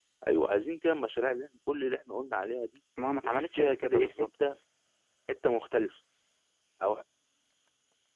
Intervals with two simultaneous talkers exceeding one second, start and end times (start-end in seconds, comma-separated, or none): 3.2-4.6